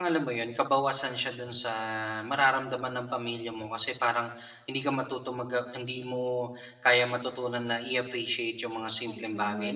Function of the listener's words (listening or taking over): listening